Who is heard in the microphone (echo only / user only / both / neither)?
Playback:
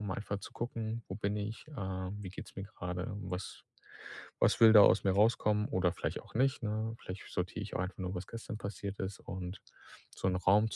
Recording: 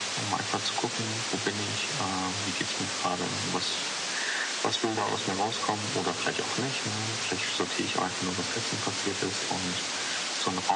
echo only